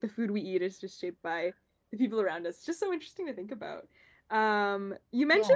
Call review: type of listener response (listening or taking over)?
listening